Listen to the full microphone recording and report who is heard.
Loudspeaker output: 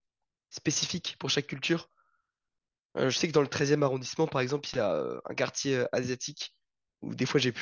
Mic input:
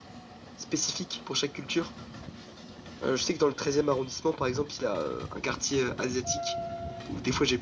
echo only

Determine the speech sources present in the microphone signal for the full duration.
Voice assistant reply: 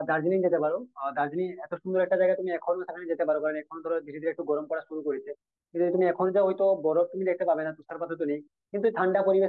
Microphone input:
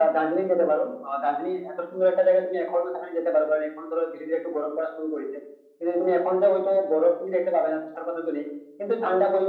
echo only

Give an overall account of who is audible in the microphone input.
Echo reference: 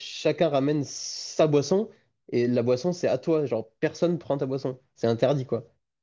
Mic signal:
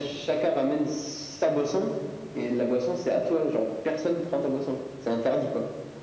echo only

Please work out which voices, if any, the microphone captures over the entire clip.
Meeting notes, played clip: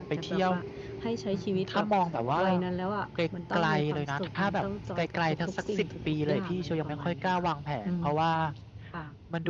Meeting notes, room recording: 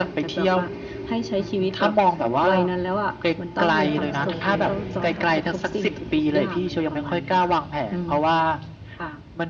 both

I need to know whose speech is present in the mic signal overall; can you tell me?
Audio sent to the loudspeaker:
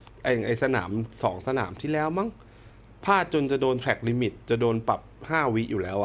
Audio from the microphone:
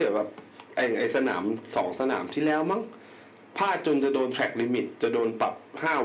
echo only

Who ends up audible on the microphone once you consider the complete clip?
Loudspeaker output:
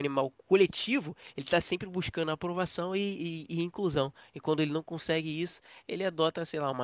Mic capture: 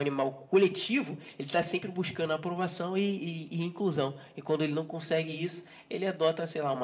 echo only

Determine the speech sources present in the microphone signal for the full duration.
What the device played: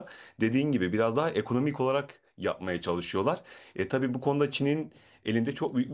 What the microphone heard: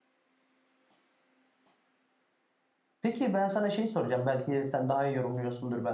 user only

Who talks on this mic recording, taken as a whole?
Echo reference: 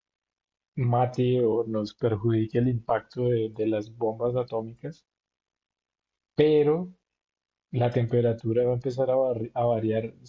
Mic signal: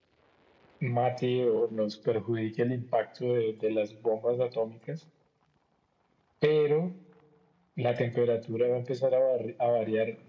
echo only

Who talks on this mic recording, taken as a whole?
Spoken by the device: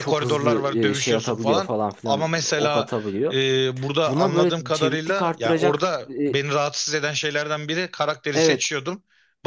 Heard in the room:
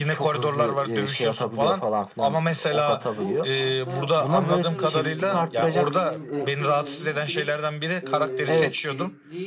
both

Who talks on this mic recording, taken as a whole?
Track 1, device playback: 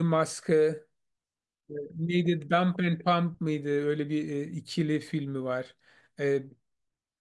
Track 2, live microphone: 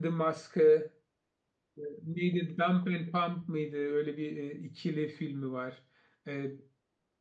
echo only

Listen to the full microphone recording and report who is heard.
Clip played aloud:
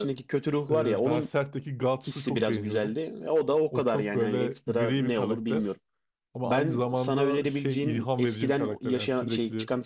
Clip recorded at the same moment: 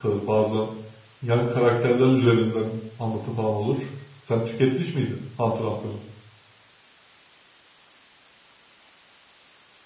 user only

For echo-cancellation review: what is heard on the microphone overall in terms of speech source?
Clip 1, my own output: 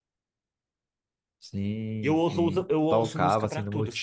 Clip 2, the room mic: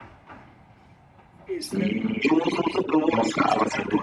both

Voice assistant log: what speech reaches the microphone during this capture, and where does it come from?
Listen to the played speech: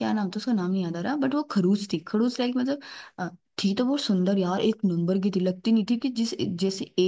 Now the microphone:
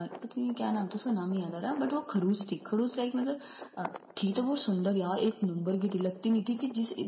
echo only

